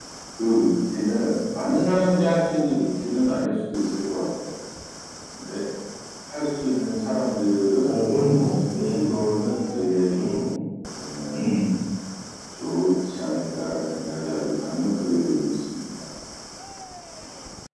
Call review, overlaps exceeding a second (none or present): none